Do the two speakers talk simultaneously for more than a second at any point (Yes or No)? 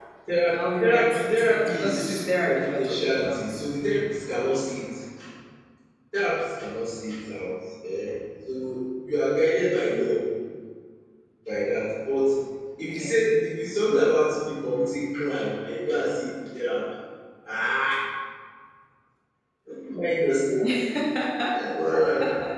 Yes